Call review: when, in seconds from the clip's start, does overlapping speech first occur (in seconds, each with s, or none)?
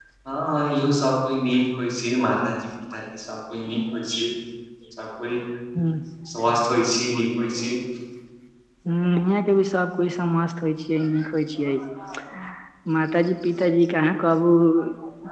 none